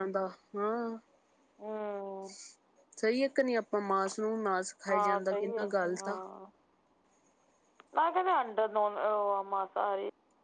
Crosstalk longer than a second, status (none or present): present